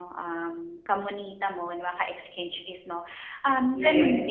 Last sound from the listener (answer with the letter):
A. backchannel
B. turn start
A